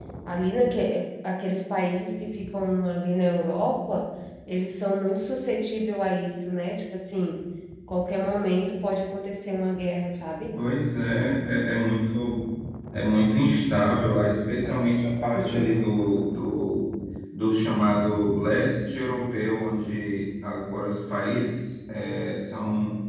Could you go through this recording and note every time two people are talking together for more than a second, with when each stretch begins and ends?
none

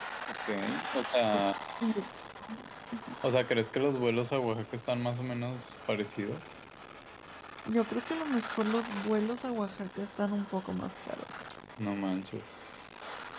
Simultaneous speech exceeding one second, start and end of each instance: none

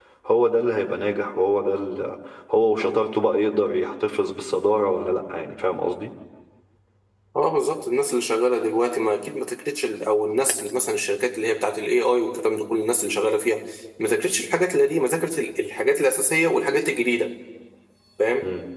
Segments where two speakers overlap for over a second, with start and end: none

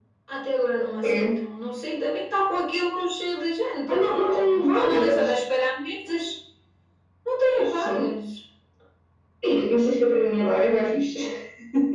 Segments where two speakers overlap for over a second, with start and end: 3.9-5.4

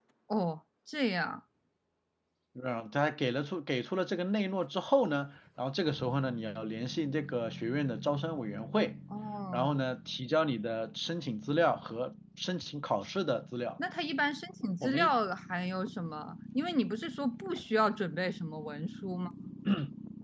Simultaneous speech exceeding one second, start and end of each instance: none

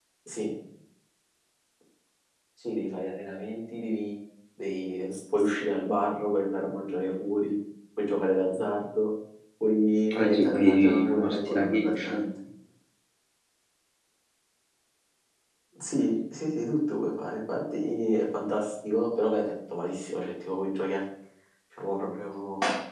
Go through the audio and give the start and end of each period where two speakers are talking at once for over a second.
10.2-12.1

